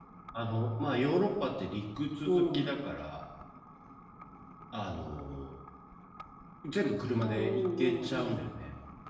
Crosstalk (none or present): present